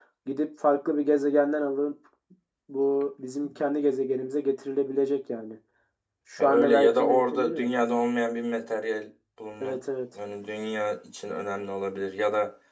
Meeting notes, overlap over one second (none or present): present